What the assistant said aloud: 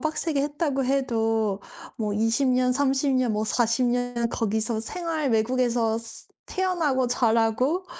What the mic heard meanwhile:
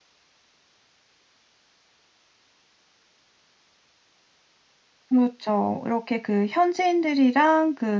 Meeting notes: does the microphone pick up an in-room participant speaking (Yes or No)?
Yes